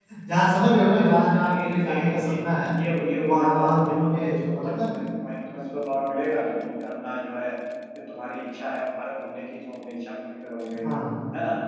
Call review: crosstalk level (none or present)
present